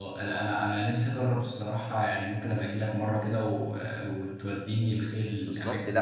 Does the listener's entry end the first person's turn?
Yes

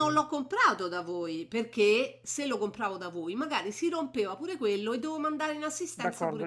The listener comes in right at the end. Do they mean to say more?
Yes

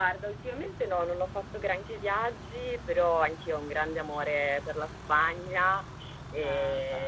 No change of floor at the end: Yes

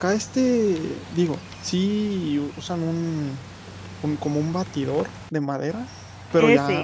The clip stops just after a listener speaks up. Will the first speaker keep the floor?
Yes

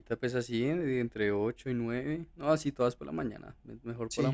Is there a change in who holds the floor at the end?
Yes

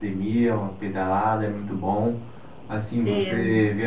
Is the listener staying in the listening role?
Yes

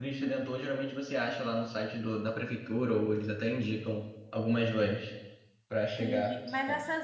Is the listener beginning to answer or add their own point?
Yes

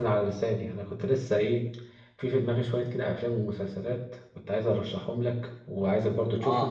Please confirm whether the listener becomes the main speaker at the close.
No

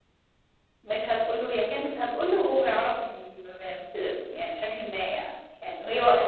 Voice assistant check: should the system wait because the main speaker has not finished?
Yes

